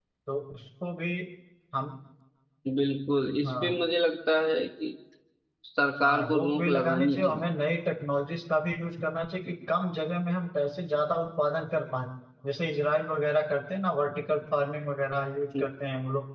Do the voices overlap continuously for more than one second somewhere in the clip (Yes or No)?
Yes